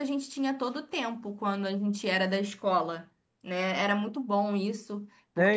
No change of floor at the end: No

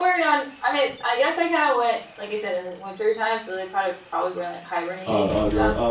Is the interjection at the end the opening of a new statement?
Yes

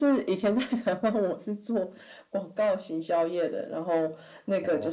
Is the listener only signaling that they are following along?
Yes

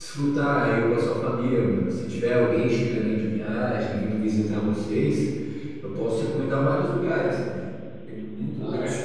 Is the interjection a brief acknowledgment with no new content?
Yes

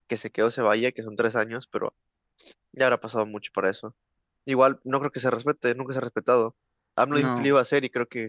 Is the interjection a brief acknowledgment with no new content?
Yes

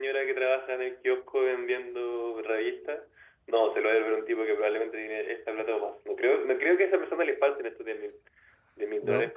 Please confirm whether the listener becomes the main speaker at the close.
No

